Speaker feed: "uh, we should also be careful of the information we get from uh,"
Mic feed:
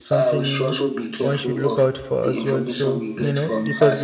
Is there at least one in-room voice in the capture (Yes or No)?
Yes